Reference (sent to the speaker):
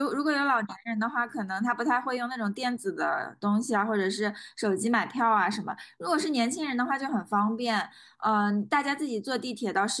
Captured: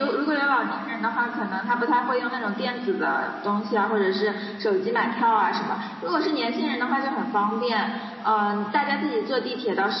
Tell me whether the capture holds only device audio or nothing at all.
Yes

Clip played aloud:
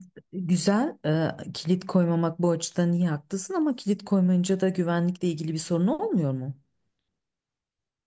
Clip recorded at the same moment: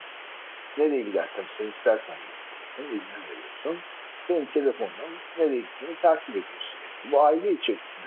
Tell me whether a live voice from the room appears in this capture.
Yes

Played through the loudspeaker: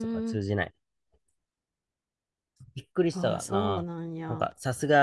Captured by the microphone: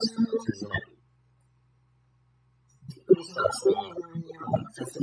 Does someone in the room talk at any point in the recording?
No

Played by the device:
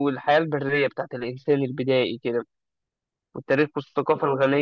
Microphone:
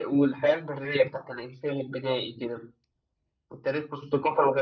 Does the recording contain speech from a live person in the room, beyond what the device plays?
No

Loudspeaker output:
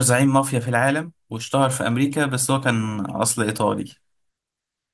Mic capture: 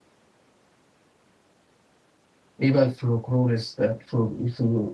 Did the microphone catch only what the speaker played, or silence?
No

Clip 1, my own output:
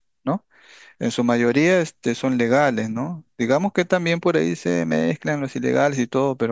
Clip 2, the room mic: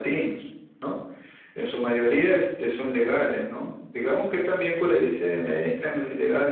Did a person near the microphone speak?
No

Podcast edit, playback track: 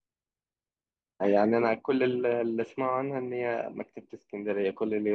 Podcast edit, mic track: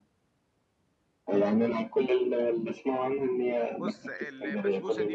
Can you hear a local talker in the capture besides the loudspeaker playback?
Yes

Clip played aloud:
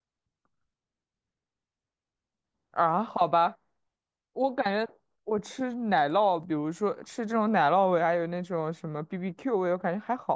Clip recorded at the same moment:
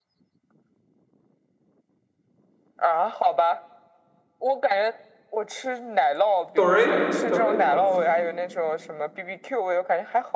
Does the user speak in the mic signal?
Yes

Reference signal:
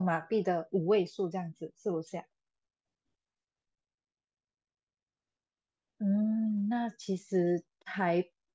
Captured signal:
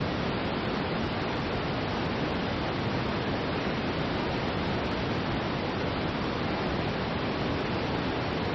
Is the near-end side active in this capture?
No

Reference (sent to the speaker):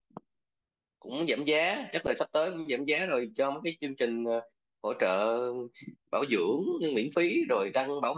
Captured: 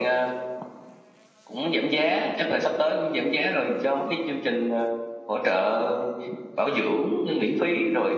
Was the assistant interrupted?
No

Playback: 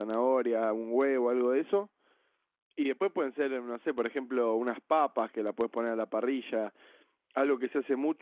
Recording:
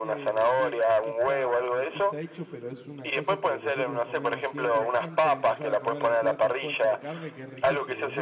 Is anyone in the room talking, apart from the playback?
Yes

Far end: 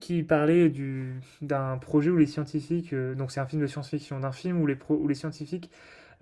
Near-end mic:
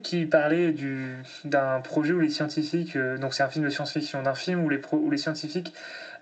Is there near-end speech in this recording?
No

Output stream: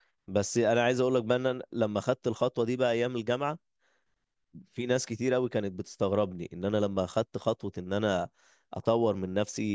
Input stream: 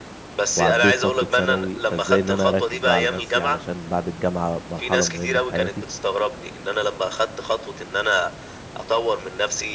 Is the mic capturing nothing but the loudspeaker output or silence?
No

